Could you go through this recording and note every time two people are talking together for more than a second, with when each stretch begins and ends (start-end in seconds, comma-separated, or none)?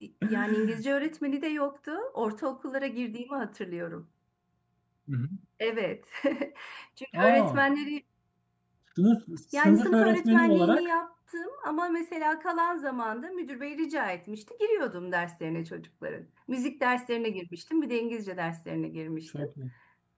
9.5-10.9